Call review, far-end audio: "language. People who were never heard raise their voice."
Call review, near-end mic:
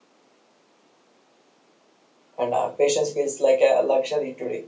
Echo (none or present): none